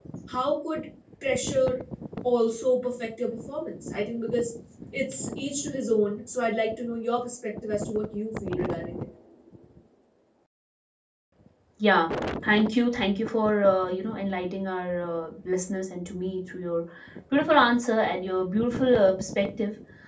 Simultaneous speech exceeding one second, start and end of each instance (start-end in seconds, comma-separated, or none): none